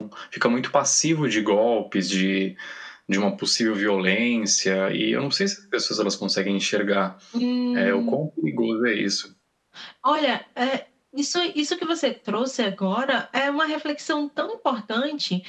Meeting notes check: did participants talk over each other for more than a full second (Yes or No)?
No